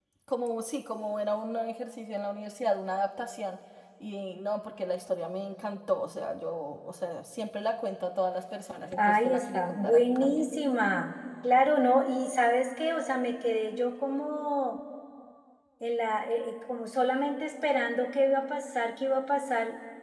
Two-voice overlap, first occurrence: 8.9 s

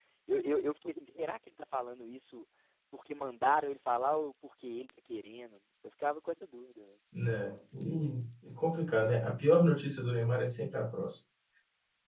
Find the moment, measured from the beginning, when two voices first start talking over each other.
none

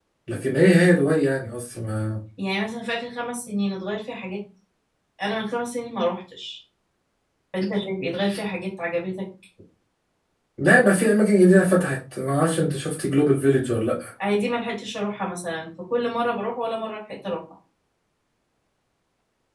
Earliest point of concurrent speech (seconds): none

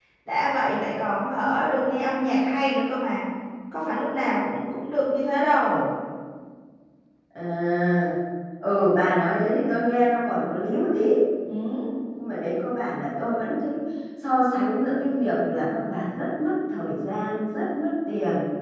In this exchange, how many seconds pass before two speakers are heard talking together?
none

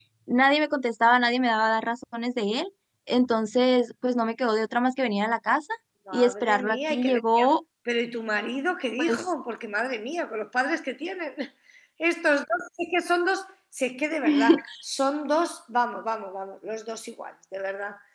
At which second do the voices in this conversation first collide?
6.1 s

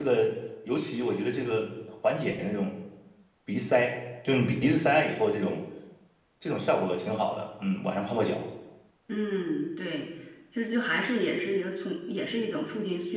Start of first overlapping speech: none

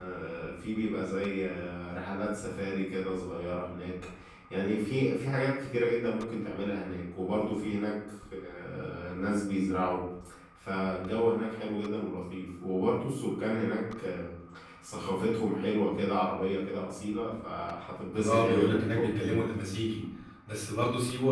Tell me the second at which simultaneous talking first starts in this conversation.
18.2 s

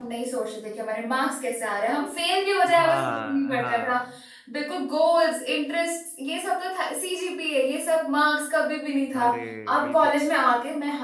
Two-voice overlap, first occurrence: 2.8 s

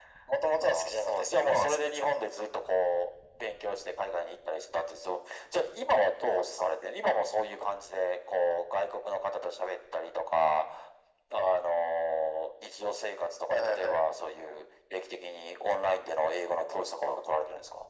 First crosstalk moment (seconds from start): 0.6 s

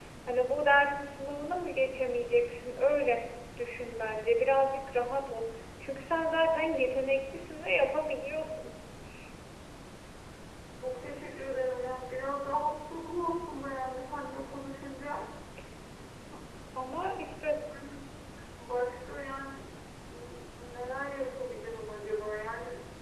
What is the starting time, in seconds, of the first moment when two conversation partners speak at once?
none

